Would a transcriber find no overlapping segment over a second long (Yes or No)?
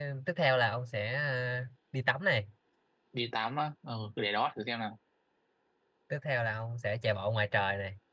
Yes